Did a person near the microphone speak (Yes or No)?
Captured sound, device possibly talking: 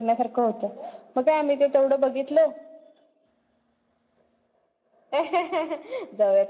No